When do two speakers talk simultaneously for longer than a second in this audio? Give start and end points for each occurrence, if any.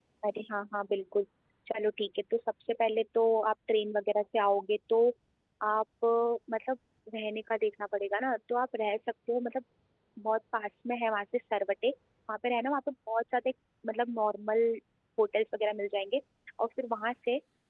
none

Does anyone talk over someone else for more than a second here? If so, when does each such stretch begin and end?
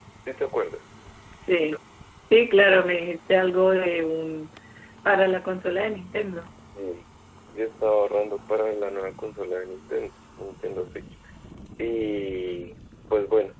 none

